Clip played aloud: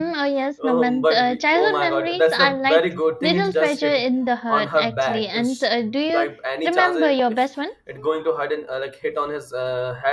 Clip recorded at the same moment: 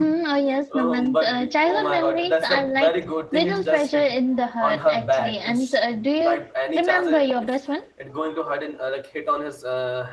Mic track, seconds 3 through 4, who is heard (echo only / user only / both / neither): echo only